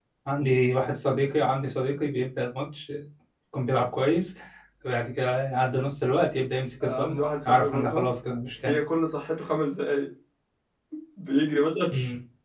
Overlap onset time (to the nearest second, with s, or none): 7 s